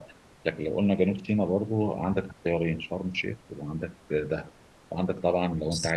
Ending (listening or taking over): listening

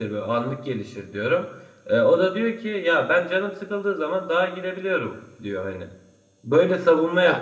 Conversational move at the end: listening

